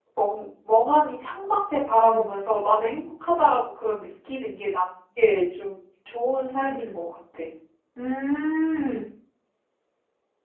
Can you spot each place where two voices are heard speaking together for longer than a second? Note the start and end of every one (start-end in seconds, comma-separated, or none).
none